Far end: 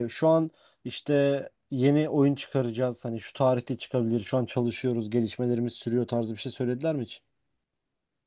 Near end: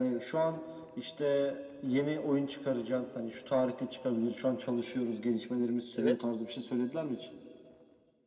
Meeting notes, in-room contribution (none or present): present